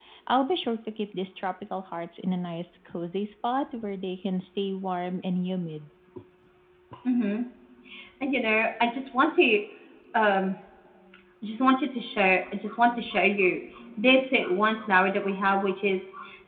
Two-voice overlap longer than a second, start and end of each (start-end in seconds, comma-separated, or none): none